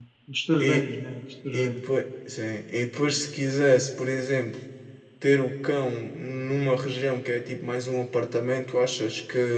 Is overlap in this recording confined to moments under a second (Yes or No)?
Yes